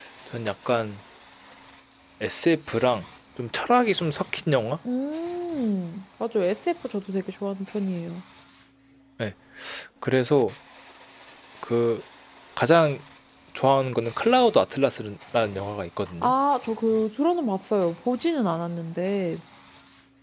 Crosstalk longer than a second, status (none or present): none